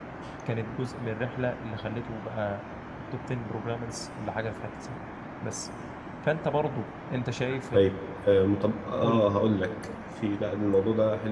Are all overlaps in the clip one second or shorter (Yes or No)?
Yes